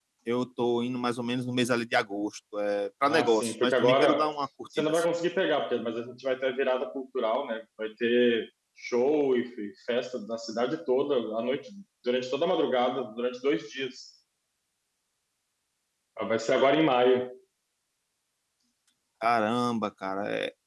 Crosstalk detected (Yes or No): Yes